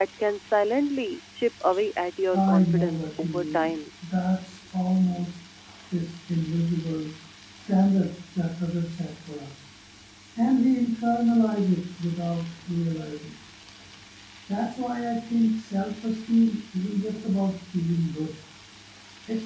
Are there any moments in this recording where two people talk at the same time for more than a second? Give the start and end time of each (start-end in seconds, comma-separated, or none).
2.3-3.7